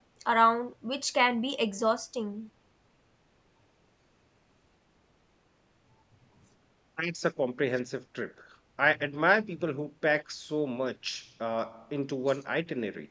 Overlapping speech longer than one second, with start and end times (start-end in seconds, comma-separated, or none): none